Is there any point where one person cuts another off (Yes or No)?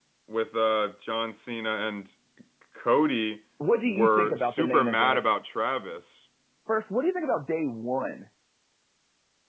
Yes